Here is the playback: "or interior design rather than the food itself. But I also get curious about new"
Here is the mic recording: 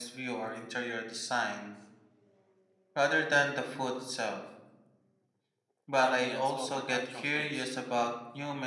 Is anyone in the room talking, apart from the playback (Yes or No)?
Yes